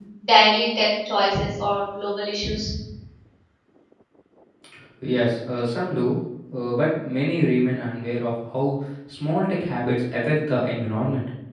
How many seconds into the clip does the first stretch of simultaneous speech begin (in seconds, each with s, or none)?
none